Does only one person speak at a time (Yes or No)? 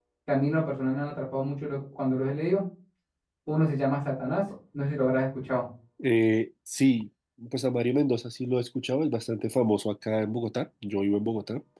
Yes